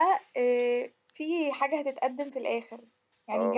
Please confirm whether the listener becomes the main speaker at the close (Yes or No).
Yes